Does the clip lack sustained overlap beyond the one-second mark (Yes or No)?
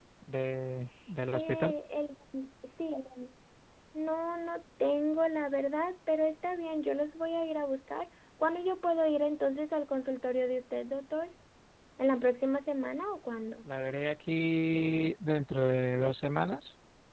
Yes